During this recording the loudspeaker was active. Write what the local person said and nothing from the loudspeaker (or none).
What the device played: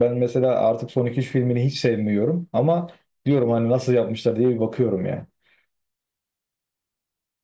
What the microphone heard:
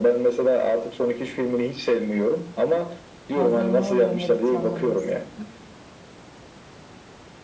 Bazen ne oluyor ne bitiyor anlamıyorsun.